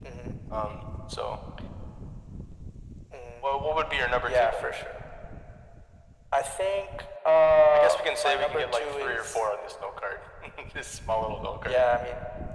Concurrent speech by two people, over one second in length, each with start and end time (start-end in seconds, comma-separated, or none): 7.7-9.4